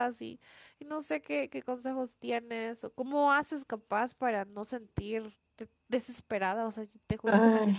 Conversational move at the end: listening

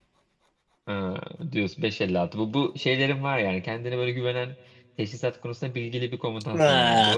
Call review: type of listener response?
taking over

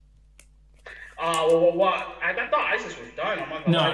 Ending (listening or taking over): taking over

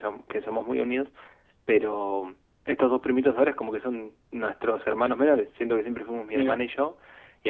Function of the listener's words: listening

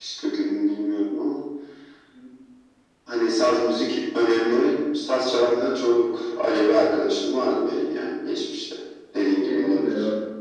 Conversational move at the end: taking over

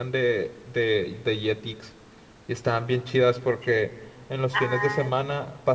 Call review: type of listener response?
listening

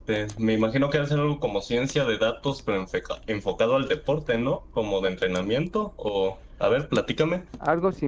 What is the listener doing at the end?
taking over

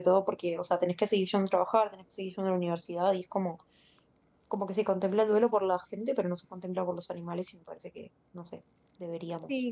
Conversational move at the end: taking over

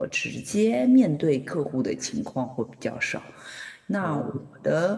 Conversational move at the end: listening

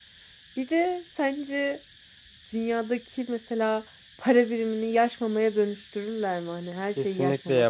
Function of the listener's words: taking over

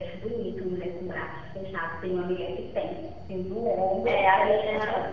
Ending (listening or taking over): taking over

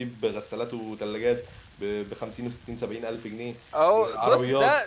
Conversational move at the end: taking over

